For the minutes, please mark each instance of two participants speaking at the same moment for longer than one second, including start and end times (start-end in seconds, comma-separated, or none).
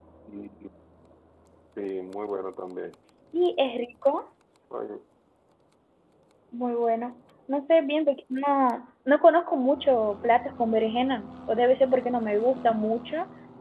none